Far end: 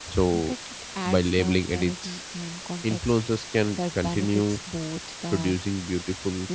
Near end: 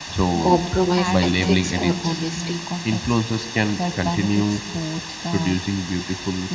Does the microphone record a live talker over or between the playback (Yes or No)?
Yes